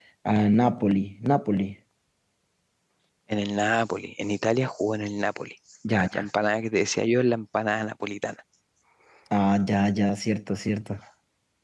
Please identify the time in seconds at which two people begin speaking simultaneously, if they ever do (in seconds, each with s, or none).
none